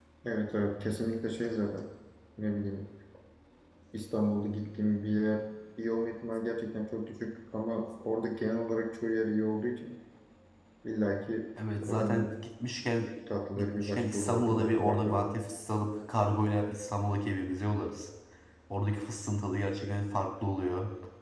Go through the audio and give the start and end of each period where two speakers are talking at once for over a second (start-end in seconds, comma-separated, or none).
13.6-15.3